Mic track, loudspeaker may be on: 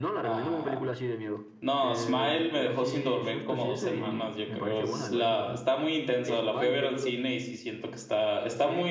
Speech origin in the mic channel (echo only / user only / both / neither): both